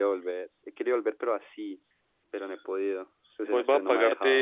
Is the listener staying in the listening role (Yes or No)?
No